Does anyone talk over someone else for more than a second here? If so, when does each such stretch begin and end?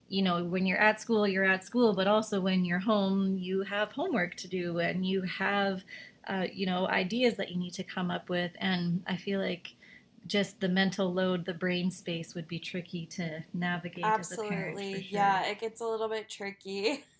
14.0-15.4

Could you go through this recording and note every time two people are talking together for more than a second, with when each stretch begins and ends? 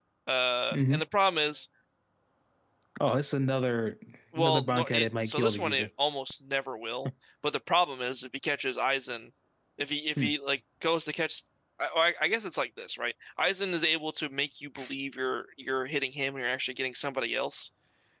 4.4-5.9

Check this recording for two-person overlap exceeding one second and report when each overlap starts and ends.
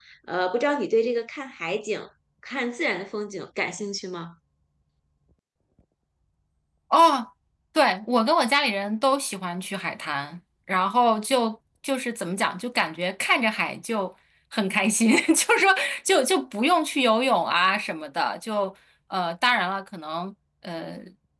none

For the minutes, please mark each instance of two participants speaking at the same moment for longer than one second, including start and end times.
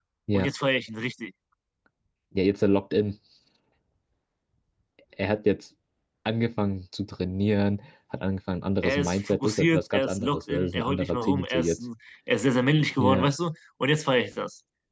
8.8-11.8

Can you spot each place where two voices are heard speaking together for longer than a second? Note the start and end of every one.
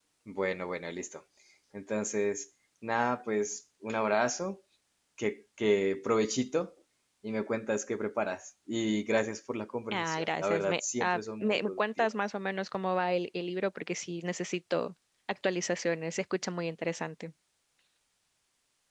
9.9-12.1

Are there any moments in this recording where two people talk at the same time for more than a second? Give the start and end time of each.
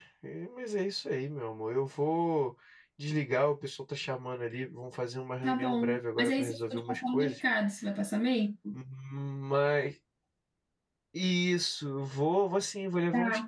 5.4-7.4

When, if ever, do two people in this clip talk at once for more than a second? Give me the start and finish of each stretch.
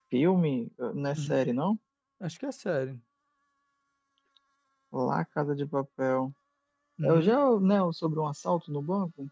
none

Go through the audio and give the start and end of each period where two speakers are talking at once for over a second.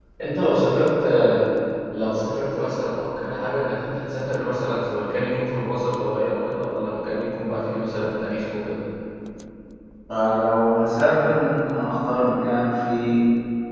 none

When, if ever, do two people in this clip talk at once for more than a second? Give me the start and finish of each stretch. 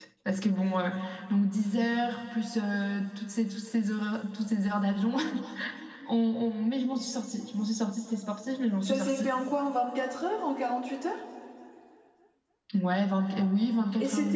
none

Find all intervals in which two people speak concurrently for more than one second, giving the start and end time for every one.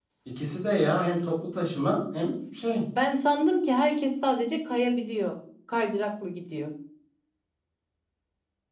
none

